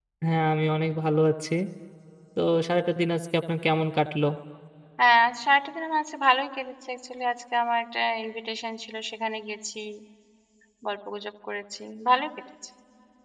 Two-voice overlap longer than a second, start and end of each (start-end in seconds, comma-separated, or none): none